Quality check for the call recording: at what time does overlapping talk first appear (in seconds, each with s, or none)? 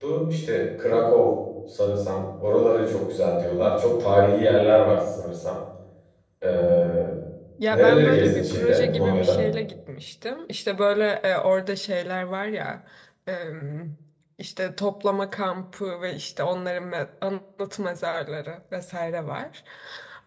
7.7 s